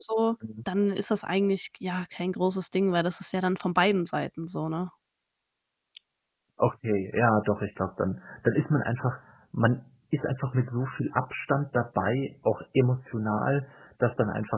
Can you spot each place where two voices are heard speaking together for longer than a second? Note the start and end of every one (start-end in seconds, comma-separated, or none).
none